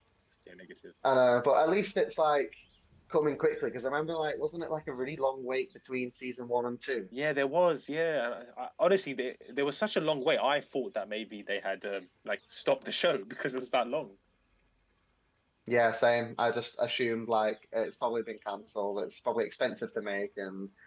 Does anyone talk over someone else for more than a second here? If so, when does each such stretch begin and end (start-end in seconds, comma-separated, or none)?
none